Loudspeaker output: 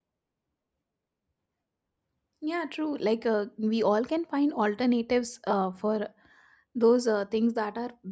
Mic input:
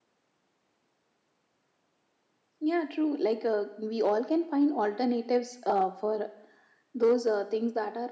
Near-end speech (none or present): none